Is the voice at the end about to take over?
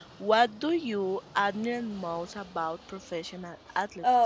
Yes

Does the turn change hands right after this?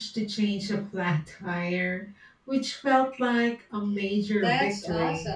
Yes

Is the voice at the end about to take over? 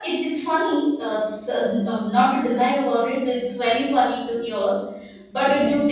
No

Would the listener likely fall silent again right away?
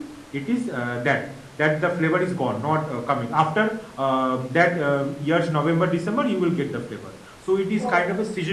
Yes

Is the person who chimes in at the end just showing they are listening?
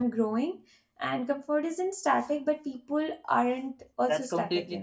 No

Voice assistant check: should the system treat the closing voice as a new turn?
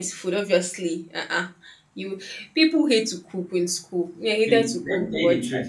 Yes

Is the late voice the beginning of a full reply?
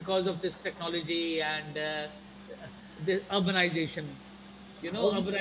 No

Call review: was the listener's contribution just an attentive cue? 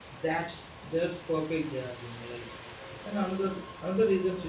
Yes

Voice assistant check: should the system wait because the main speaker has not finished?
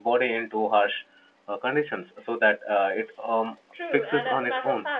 No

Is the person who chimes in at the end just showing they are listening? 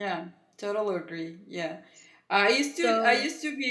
Yes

